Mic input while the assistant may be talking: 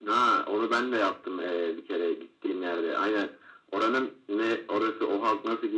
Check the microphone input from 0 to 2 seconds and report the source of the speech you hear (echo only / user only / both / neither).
echo only